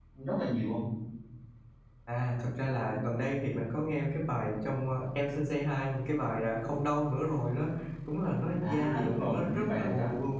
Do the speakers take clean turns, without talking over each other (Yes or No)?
No